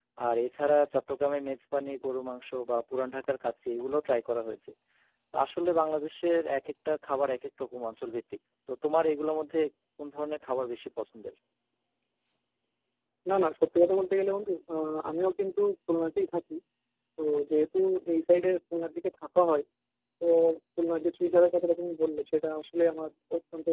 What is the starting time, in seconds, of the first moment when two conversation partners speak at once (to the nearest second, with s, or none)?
none